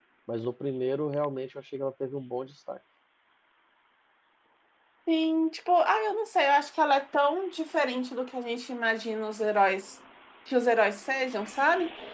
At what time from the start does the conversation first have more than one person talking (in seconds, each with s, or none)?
none